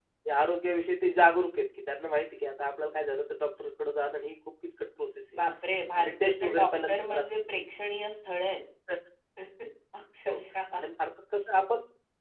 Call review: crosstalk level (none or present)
present